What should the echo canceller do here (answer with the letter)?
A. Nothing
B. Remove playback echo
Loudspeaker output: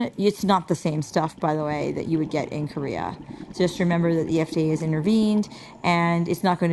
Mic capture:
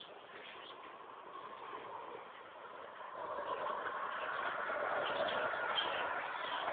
A